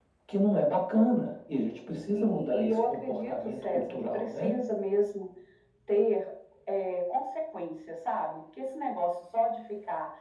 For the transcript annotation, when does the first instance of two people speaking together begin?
2.1 s

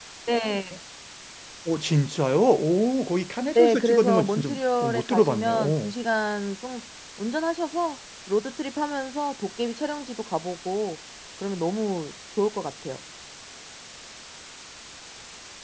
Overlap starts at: 3.6 s

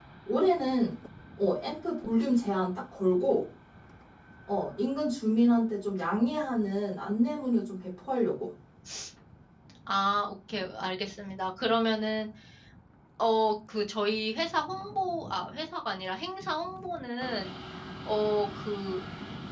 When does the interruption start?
none

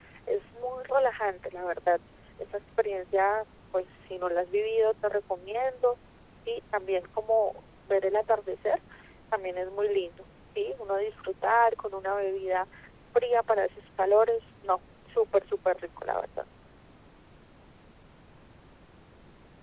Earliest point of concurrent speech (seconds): none

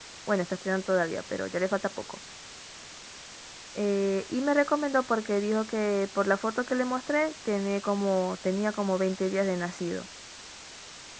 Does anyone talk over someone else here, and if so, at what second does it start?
none

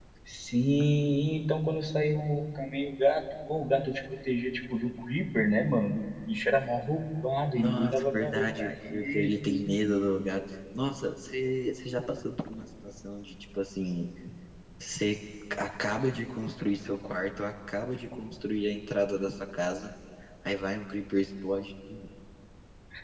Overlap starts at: 7.5 s

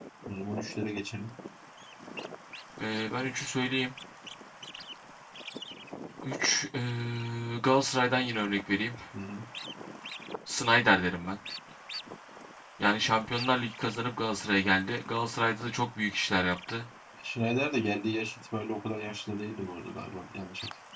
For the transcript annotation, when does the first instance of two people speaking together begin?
none

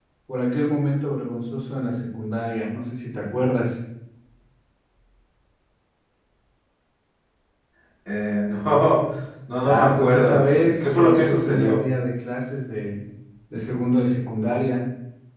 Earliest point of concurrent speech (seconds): 9.6 s

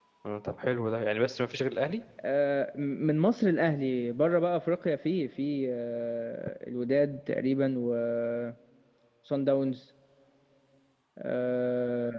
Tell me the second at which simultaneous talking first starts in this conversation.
none

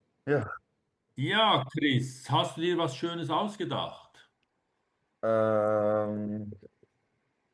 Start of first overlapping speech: none

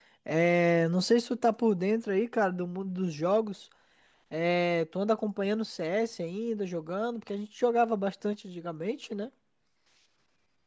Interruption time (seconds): none

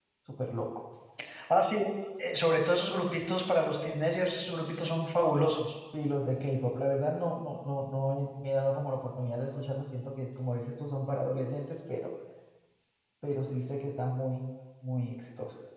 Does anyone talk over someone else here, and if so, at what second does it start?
none

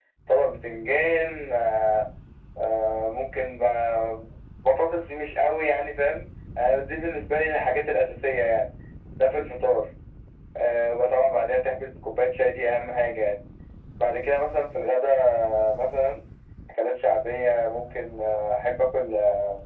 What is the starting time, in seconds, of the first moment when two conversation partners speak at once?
none

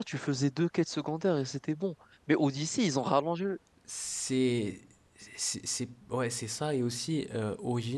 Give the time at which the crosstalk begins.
none

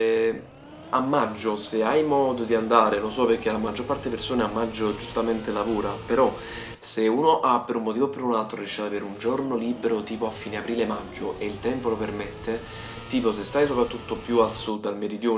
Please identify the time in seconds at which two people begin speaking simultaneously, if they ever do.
none

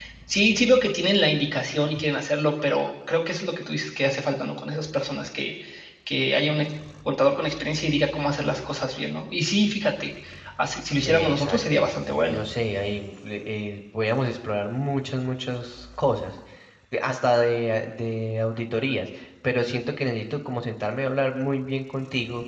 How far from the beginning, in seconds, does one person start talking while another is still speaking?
11.1 s

